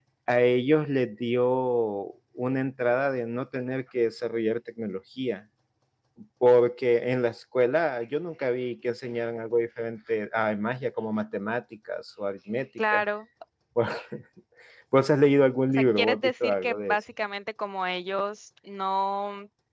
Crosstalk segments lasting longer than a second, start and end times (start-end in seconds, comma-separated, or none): 15.7-17.0